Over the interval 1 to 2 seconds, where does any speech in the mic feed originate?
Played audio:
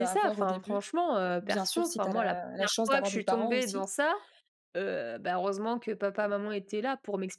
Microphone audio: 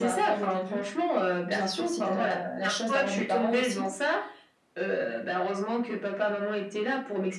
echo only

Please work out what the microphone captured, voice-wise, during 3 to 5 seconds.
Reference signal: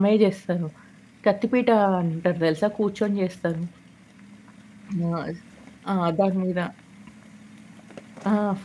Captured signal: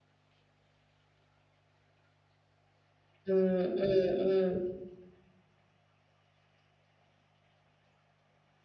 user only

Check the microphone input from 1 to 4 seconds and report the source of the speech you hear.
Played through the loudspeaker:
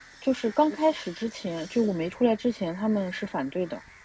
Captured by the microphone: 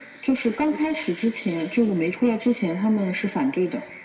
echo only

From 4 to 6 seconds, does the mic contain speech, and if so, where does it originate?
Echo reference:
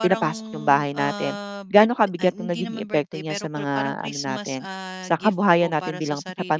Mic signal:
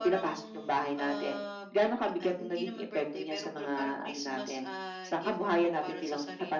echo only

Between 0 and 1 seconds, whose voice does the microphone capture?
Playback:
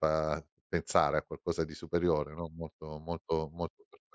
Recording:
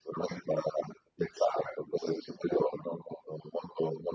echo only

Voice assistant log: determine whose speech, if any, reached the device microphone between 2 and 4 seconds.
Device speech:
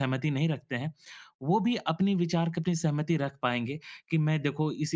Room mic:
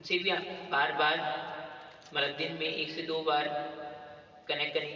user only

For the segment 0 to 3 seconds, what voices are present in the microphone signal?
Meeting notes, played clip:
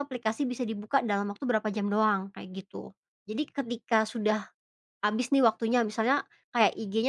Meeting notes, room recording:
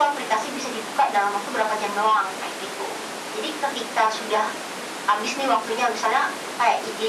echo only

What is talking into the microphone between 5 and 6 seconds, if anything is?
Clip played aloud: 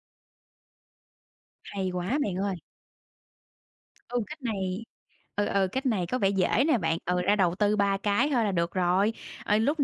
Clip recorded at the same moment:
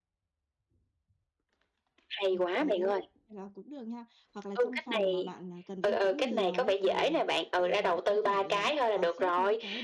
both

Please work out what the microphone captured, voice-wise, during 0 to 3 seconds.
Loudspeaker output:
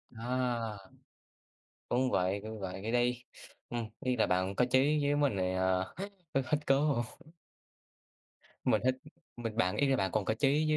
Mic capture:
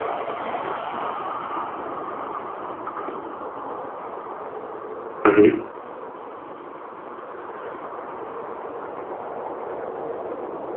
neither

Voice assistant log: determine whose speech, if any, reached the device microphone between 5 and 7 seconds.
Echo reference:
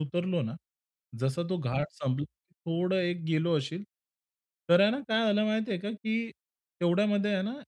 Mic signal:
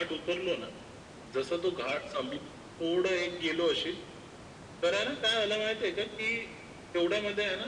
echo only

